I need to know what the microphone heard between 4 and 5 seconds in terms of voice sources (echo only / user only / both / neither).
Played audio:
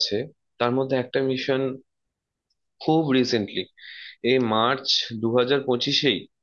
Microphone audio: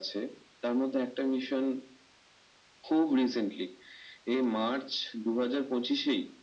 echo only